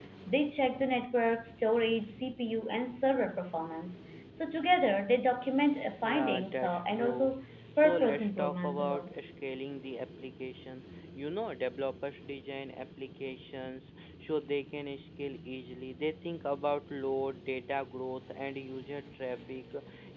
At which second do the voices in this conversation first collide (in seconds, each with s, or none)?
6.0 s